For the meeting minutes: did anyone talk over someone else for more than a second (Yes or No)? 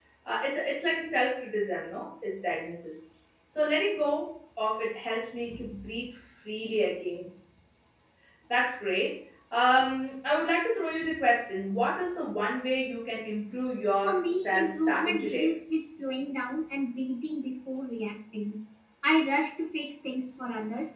Yes